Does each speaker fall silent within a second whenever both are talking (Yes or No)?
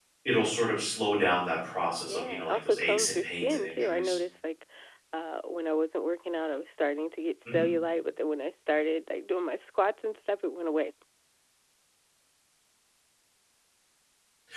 No